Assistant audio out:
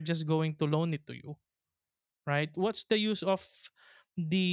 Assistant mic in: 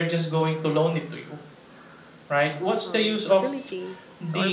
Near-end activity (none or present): present